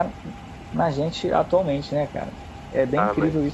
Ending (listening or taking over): taking over